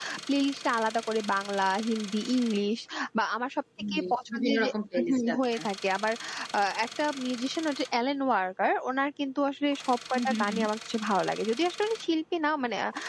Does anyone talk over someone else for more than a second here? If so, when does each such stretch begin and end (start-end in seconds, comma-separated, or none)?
4.0-5.6